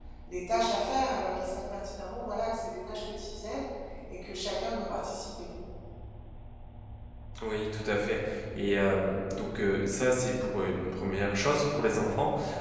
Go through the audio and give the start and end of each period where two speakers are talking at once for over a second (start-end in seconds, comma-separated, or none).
none